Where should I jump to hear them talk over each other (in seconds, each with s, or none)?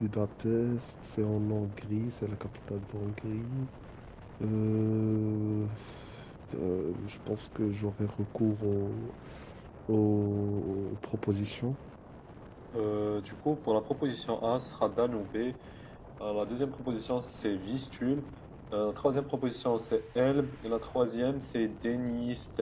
none